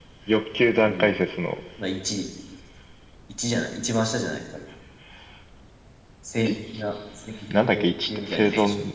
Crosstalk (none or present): present